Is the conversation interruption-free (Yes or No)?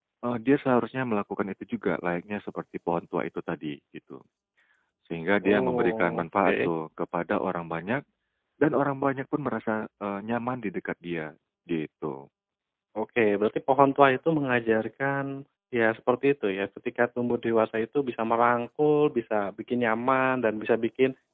No